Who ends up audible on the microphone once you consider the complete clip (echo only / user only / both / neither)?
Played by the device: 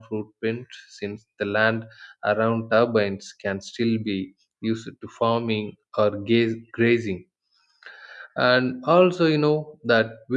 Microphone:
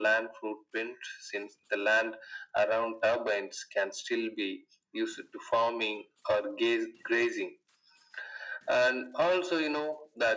echo only